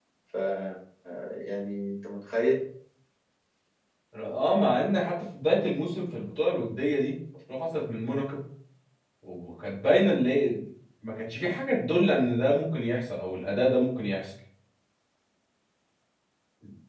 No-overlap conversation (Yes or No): Yes